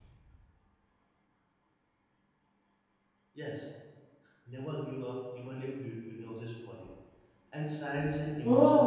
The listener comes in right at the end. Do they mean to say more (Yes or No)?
Yes